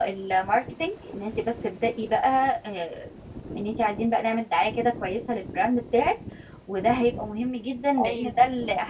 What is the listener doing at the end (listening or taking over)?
listening